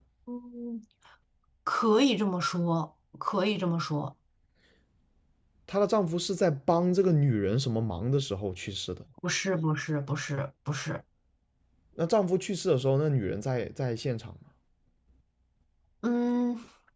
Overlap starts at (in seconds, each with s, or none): none